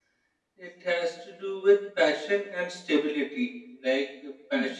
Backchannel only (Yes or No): Yes